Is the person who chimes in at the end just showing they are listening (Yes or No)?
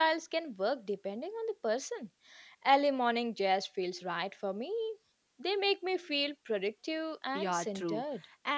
No